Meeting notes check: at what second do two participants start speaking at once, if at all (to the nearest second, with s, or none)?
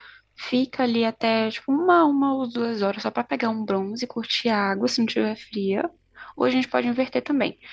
none